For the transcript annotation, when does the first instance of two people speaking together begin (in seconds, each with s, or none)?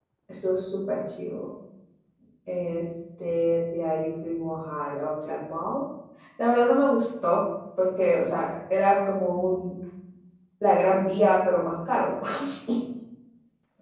none